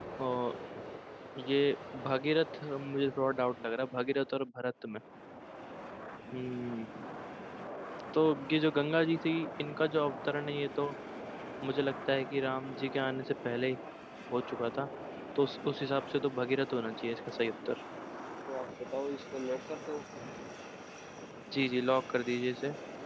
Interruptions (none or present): none